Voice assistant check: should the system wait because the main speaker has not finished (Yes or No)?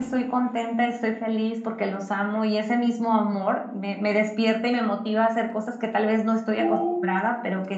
Yes